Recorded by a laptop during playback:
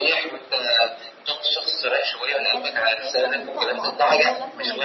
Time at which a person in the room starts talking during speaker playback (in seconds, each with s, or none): 2.4 s